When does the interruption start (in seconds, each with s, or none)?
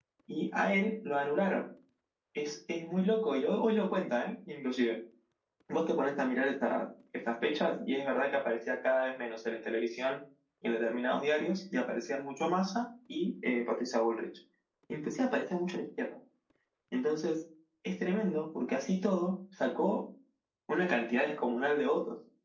none